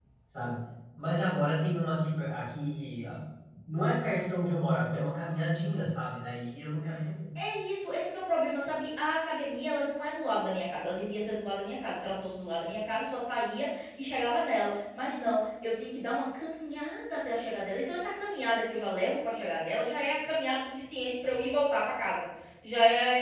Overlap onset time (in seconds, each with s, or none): none